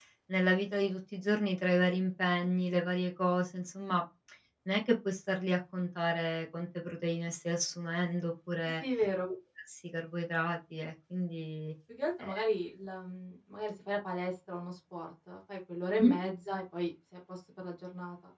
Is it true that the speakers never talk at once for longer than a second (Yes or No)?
Yes